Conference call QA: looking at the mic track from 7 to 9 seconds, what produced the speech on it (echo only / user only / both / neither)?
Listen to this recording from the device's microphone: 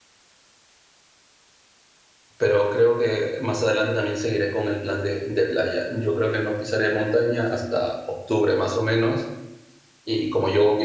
user only